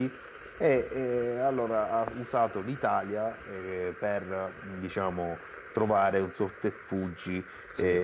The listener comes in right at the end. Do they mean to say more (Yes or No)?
No